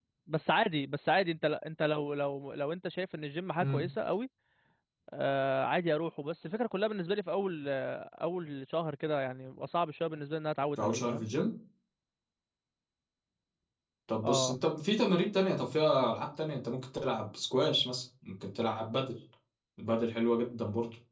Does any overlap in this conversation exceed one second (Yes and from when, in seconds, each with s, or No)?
No